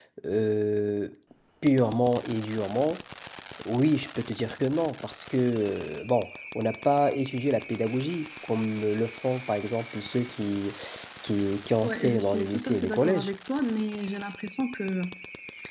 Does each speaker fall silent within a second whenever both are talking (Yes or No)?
No